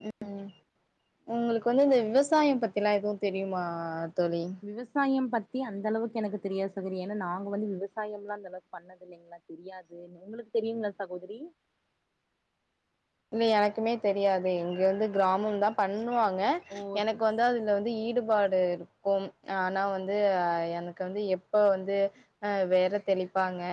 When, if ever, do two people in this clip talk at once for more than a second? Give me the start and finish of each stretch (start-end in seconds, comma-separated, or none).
none